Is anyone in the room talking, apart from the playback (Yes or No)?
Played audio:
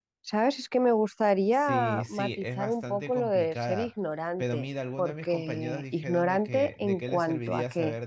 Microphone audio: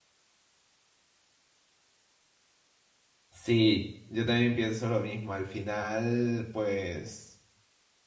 Yes